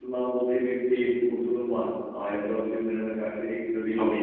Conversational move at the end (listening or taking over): taking over